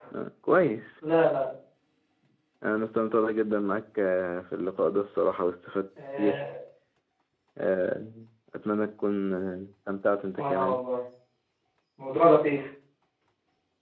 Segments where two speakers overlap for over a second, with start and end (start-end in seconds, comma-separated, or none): none